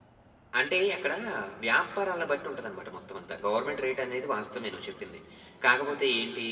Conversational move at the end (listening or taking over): listening